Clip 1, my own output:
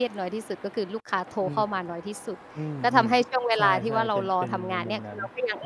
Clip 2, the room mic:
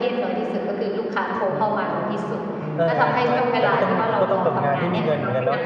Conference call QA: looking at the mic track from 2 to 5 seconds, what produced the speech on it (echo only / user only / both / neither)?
both